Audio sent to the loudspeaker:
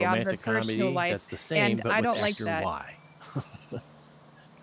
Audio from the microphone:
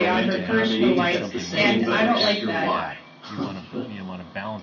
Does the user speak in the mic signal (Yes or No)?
Yes